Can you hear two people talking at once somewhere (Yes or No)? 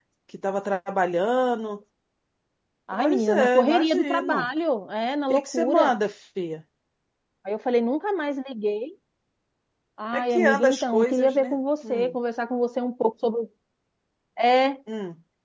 Yes